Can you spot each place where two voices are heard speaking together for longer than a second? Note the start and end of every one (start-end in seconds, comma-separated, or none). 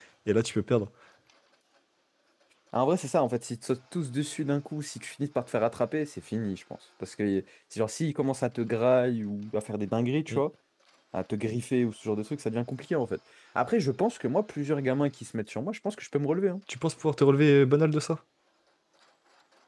none